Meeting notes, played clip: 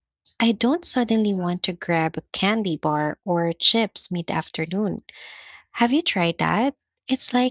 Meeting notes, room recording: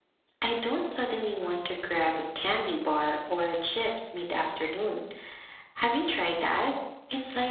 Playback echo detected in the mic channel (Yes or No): Yes